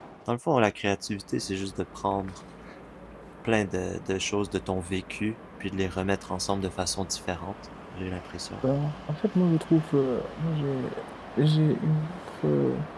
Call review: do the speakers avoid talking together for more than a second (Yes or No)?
Yes